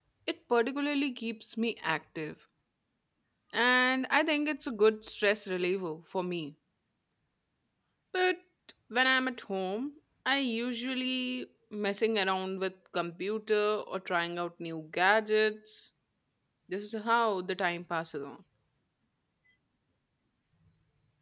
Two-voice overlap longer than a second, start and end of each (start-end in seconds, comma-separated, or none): none